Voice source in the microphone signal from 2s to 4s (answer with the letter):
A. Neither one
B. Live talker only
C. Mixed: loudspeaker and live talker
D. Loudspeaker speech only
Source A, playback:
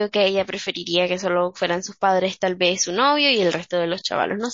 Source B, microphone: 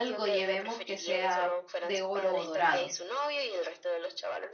C